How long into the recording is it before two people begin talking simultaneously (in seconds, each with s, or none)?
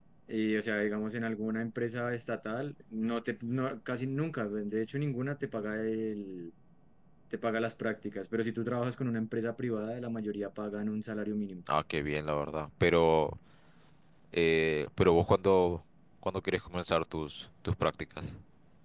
none